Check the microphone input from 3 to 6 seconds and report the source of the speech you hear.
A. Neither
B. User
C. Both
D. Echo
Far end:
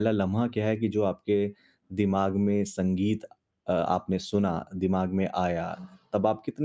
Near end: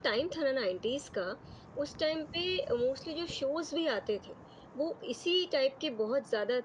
B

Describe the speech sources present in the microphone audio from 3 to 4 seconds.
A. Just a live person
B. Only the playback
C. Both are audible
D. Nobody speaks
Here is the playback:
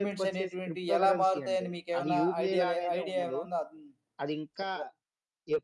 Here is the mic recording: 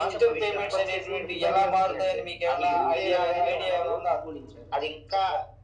C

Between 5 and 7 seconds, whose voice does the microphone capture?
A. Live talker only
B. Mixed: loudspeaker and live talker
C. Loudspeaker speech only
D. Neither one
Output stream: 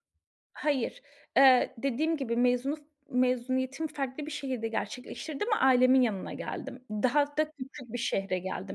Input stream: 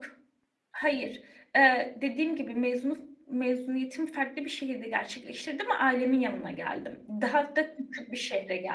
C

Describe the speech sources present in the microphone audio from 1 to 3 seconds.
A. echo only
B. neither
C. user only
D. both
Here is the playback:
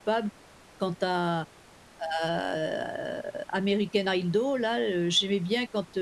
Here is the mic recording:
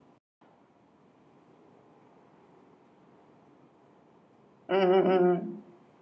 B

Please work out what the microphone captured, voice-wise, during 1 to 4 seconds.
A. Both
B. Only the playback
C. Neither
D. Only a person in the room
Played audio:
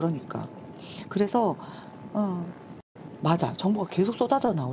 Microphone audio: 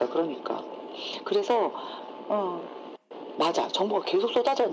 B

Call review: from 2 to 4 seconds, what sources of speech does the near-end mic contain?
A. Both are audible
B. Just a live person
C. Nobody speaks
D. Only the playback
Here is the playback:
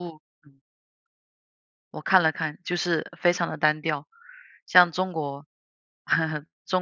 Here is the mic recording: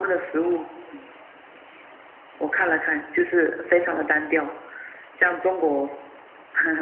D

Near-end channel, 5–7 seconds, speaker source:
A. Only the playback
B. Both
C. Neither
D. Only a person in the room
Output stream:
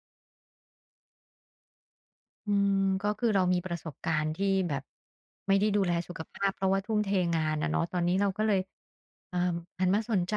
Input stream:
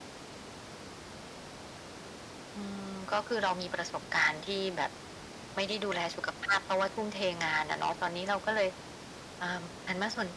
A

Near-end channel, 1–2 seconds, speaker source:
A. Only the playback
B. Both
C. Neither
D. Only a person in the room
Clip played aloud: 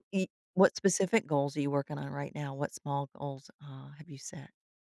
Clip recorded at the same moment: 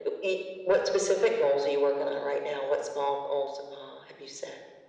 A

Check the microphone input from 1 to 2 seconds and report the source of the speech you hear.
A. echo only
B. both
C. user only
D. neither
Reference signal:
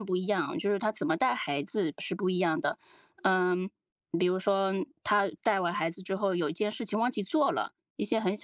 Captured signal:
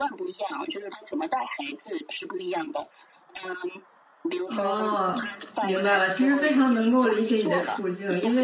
A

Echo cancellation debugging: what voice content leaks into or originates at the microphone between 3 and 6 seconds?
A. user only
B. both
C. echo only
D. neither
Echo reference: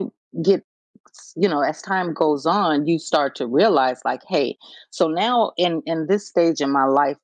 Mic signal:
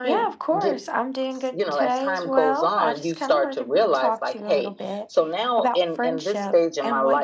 B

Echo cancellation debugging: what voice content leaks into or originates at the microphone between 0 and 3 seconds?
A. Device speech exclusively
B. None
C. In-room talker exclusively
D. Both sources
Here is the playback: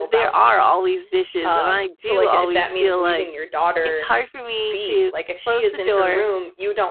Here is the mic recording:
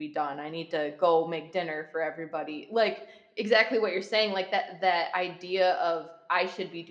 C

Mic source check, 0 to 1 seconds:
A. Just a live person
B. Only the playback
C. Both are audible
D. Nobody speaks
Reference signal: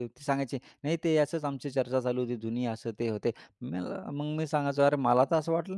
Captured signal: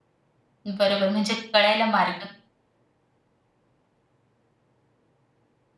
A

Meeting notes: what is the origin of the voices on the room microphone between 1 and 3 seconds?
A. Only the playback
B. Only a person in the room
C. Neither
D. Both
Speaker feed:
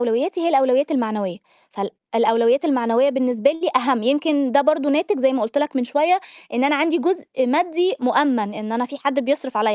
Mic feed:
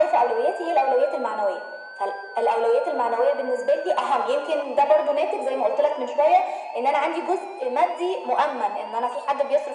A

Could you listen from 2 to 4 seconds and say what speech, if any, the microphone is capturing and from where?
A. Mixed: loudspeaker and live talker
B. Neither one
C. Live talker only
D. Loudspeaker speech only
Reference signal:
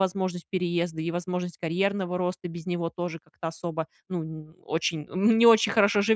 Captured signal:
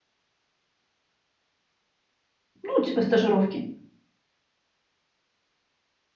C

